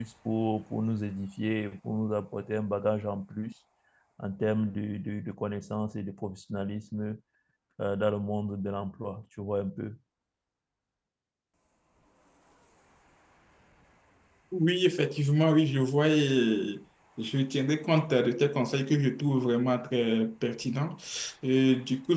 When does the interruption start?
none

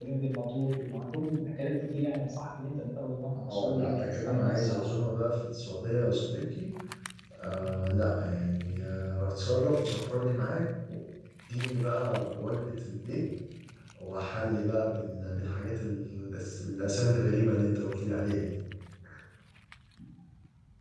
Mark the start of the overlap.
3.5 s

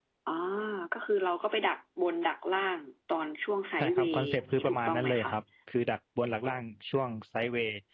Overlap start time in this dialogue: 3.8 s

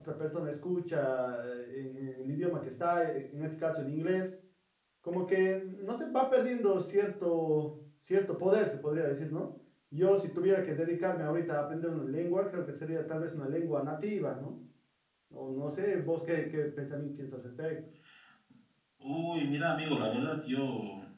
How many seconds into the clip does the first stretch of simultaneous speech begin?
none

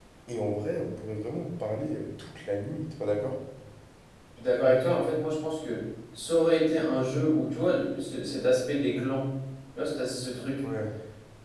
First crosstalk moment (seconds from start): none

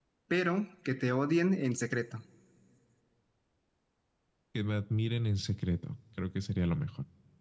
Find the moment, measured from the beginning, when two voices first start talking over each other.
none

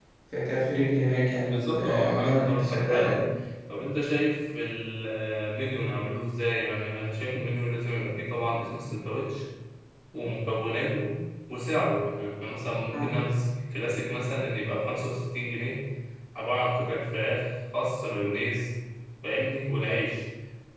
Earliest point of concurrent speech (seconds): 1.4 s

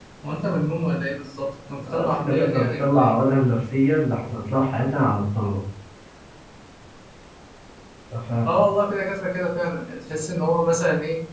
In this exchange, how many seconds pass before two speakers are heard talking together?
1.9 s

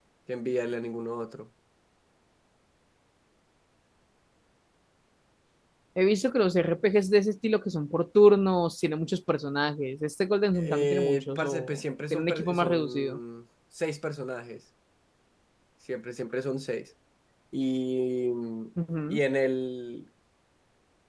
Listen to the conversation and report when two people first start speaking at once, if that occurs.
10.5 s

